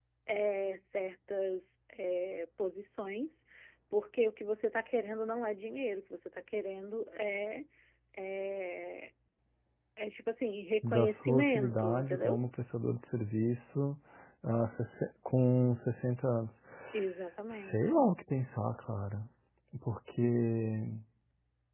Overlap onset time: 10.9 s

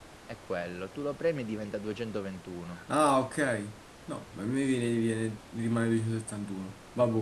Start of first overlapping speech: none

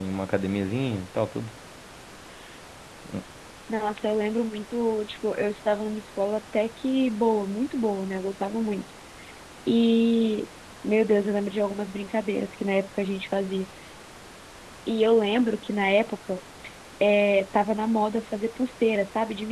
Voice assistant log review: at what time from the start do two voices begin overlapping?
none

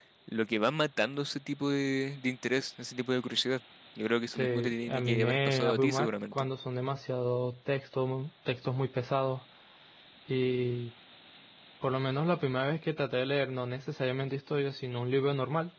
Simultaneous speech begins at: 4.3 s

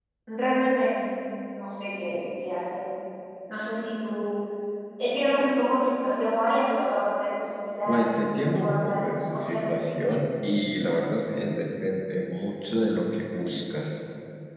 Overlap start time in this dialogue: 7.9 s

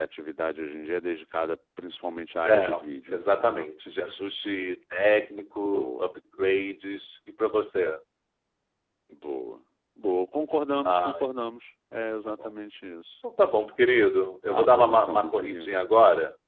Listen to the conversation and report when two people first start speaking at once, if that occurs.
2.4 s

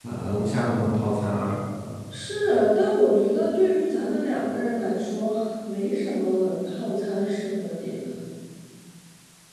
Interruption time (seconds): none

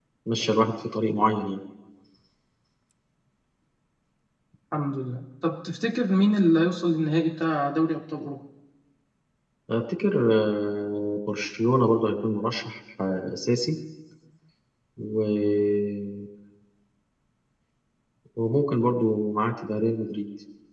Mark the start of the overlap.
none

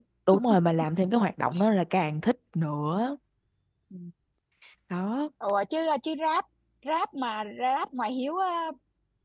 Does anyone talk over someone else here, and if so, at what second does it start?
none

